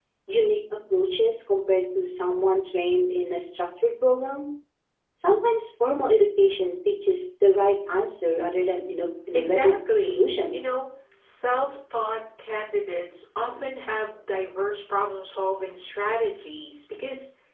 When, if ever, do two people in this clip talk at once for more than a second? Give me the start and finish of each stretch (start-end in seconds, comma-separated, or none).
9.3-10.6